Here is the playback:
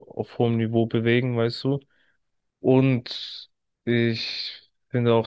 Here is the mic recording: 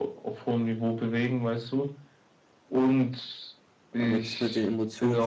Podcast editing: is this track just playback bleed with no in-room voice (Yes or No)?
No